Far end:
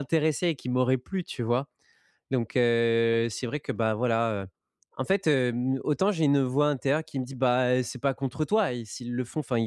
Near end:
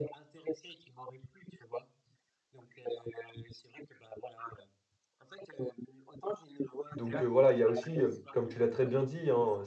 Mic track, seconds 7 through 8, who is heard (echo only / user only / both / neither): both